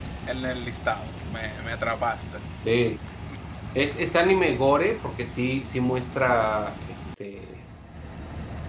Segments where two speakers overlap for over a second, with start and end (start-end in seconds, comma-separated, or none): none